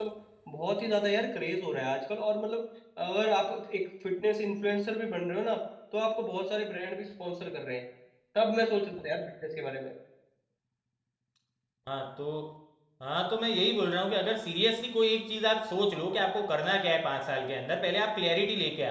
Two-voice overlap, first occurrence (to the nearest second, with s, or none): none